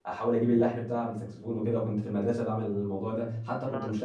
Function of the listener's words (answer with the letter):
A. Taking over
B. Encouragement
B